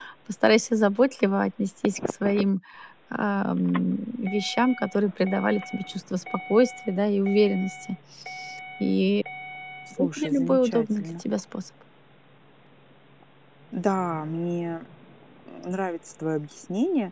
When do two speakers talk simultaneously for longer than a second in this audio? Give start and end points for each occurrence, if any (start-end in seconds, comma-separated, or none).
10.0-11.2